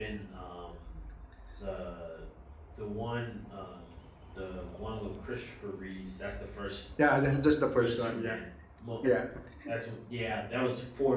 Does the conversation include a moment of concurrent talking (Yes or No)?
Yes